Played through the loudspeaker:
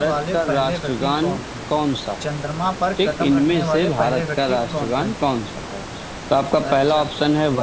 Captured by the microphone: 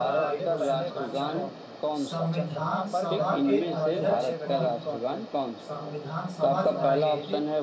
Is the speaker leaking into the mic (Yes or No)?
Yes